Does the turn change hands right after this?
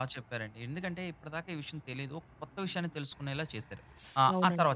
Yes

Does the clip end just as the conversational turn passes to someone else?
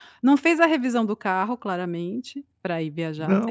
Yes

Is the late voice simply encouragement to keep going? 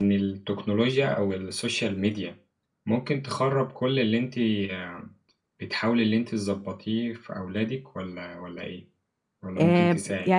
No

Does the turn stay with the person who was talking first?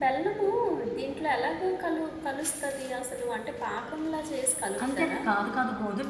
No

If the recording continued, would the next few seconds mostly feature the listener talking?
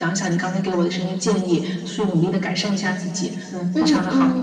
Yes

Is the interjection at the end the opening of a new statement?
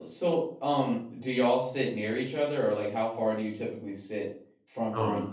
Yes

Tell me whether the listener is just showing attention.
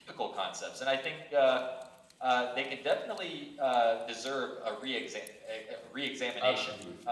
Yes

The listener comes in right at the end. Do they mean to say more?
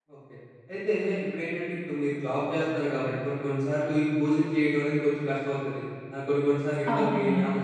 No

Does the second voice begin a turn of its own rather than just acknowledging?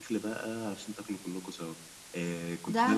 No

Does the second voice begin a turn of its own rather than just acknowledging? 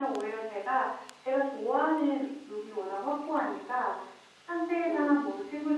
No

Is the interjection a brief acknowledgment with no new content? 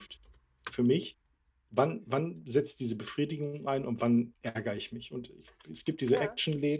Yes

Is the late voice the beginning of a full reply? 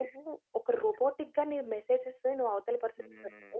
No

